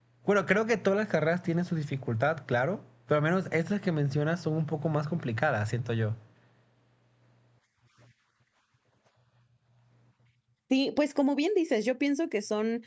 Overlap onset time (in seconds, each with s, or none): none